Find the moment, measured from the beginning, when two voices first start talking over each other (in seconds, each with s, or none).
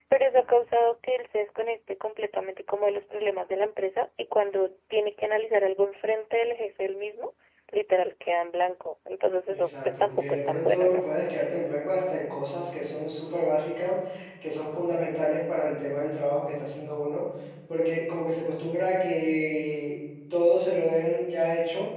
9.5 s